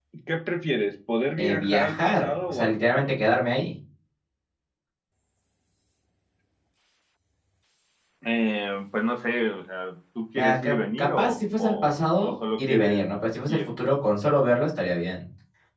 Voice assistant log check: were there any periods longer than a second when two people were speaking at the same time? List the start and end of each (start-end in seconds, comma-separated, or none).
1.4-3.1, 10.3-13.1